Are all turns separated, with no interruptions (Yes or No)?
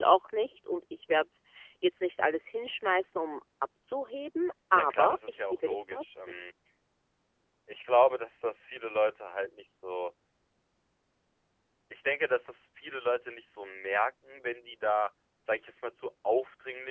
No